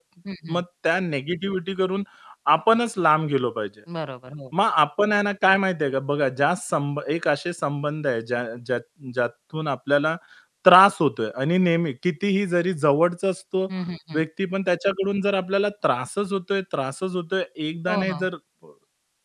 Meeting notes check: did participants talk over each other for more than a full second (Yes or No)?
No